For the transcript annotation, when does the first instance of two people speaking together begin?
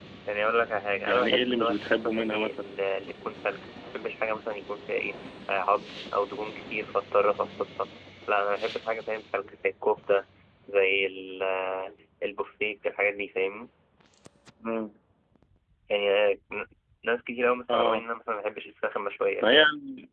1.1 s

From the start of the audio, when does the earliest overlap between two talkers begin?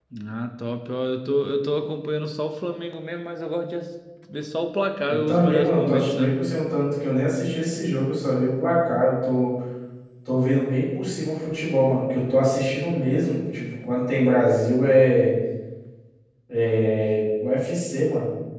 5.1 s

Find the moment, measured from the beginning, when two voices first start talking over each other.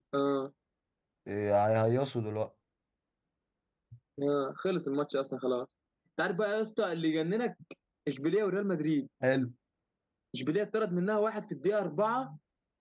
none

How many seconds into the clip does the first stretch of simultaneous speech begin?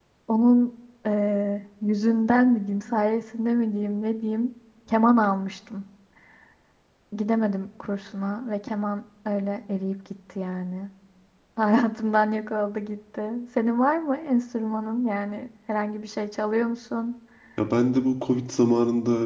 none

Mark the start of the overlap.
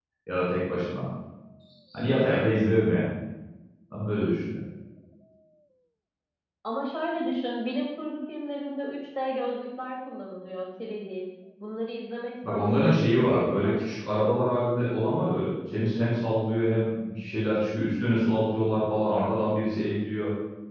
12.4 s

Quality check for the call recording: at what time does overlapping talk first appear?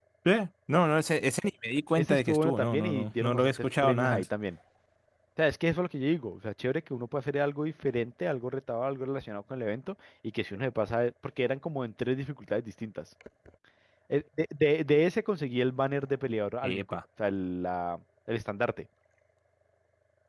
2.0 s

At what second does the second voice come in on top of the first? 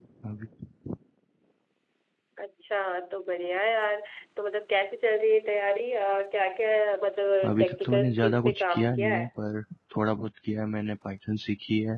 7.4 s

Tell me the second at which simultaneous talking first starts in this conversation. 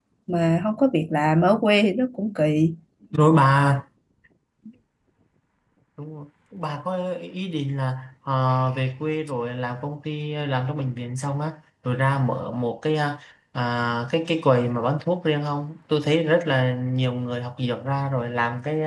none

